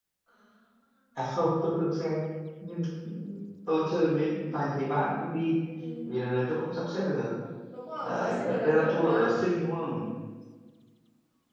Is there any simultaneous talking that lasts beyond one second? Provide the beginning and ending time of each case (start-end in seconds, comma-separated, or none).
8.0-9.3